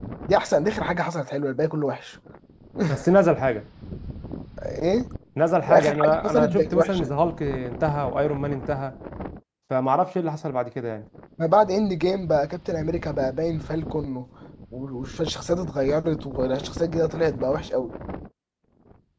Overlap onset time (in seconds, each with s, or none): 5.7 s